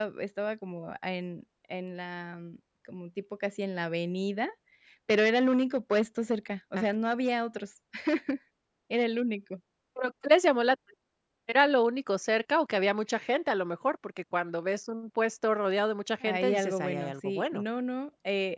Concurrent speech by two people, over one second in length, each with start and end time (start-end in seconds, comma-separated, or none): 16.2-17.6